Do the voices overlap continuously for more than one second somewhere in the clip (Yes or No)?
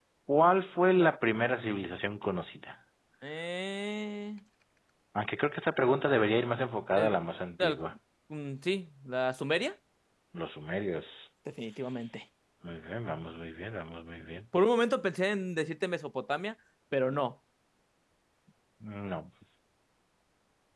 No